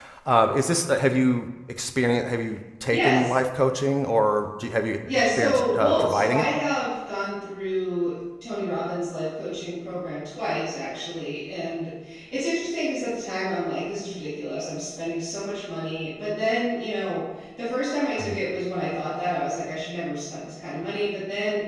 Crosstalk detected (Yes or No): Yes